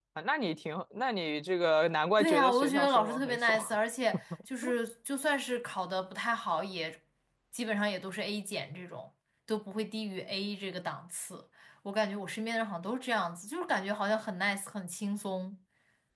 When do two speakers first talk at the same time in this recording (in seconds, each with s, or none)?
2.2 s